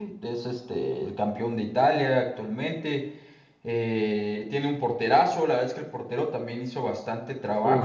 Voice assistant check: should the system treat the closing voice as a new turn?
Yes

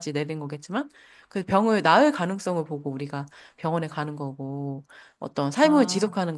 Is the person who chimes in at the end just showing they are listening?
Yes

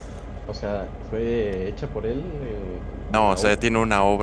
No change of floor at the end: No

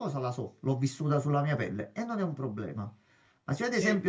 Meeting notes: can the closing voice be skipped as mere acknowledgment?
Yes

